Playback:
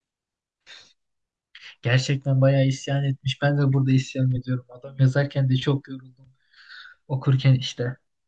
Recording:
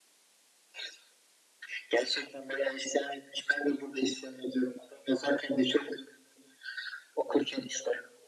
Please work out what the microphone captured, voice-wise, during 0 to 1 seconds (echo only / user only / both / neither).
neither